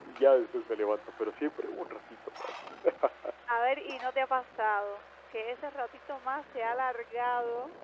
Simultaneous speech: No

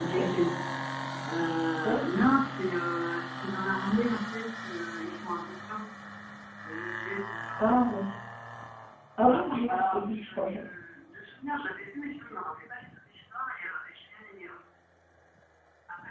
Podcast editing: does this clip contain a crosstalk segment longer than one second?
Yes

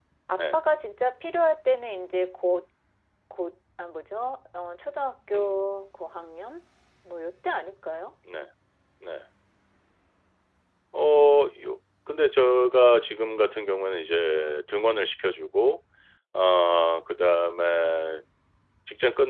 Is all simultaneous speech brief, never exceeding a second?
Yes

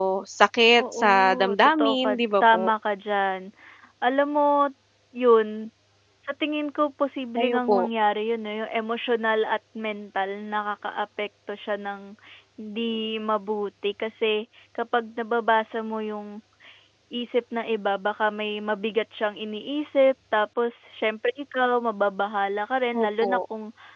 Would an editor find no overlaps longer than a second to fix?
No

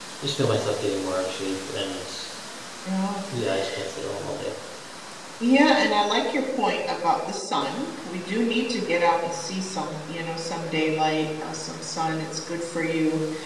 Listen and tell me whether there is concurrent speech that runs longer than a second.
No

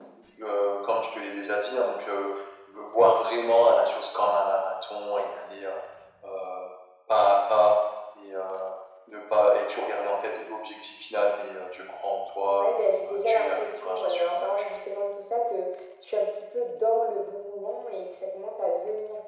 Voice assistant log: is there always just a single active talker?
No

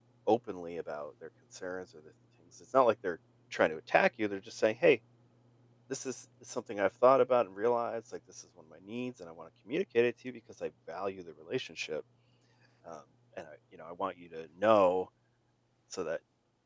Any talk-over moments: No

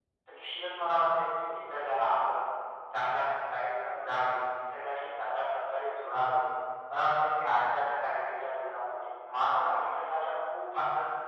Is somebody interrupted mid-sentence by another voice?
No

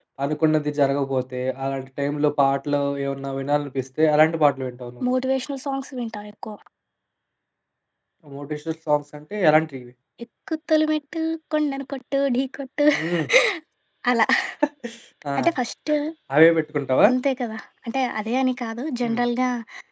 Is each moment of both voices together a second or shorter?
Yes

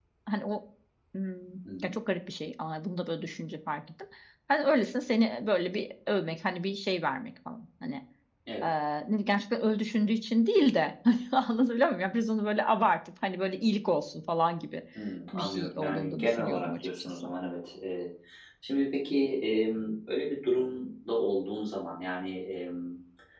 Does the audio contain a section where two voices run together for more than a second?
Yes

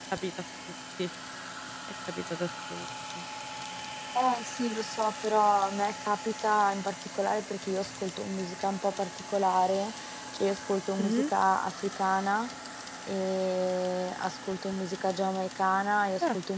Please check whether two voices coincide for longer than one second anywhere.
No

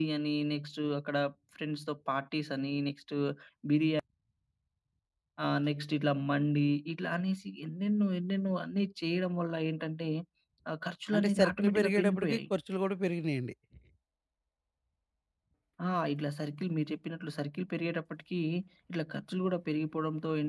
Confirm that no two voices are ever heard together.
No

